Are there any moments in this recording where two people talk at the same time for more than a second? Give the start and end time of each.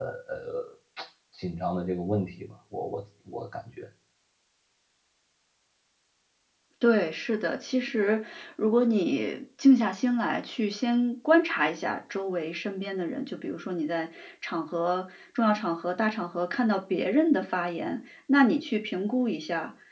none

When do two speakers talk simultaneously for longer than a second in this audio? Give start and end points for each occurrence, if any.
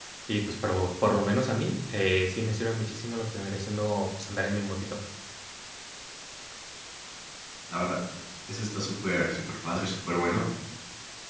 none

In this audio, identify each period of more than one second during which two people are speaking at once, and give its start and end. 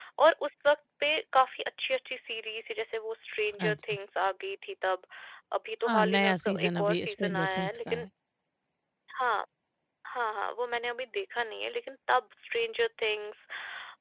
5.9-8.1

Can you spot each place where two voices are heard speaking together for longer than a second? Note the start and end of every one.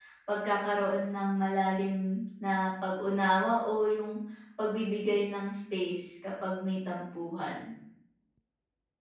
none

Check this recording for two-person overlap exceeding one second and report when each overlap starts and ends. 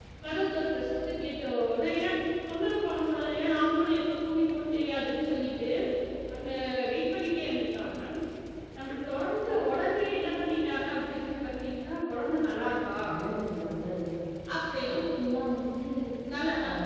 none

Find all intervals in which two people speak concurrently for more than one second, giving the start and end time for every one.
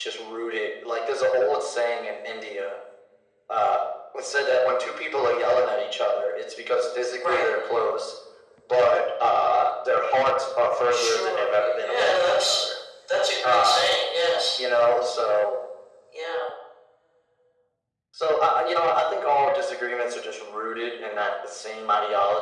10.9-12.7

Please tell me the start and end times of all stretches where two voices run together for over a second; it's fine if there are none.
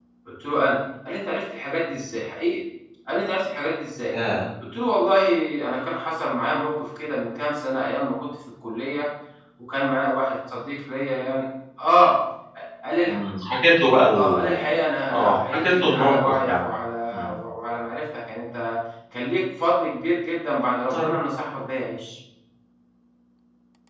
15.1-16.5

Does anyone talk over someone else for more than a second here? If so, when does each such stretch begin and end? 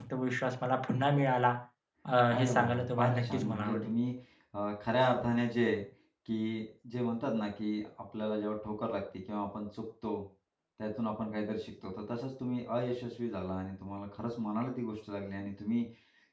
2.4-3.9

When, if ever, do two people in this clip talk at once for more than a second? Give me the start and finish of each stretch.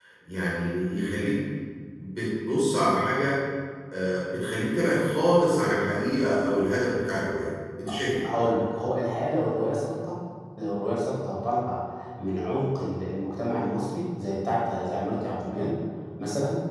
none

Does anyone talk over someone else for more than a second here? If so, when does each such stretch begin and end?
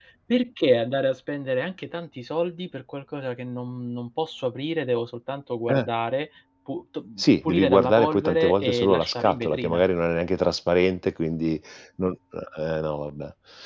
7.2-9.8

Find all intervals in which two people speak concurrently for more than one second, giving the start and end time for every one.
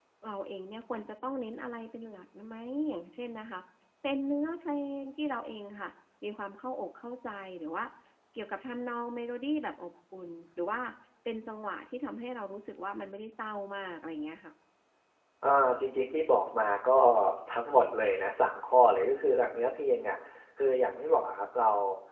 none

